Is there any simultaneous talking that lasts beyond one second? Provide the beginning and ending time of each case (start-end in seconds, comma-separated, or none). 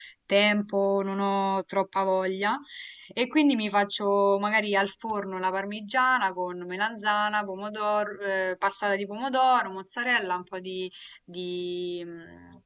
none